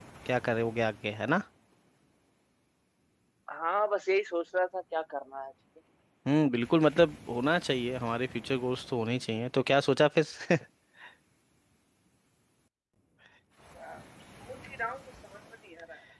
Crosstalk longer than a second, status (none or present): none